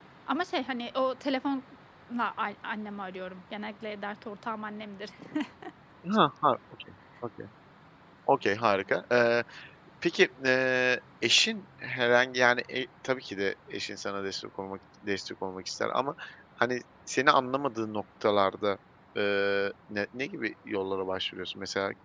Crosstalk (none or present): none